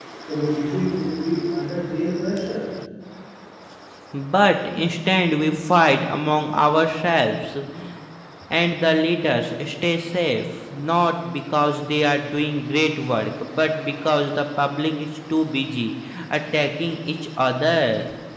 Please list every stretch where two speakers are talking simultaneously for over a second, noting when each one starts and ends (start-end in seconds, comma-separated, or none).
none